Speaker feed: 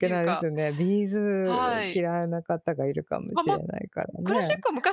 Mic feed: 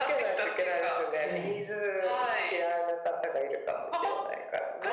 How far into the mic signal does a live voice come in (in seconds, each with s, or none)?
1.2 s